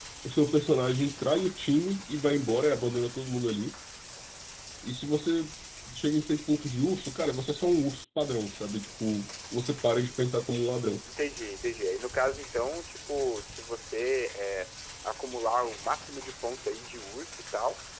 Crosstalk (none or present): none